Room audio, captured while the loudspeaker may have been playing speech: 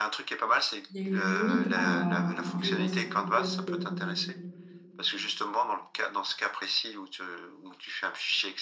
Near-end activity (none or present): present